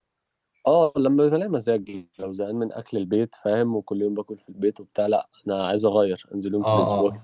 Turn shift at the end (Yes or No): Yes